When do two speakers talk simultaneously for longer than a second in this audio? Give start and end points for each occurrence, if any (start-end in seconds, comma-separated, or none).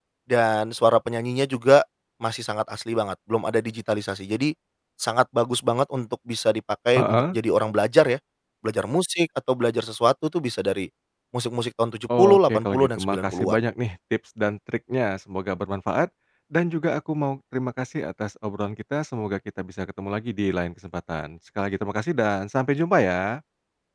12.2-13.6